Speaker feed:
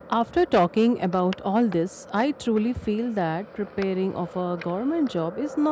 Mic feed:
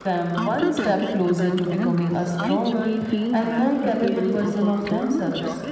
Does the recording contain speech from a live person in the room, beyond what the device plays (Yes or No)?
Yes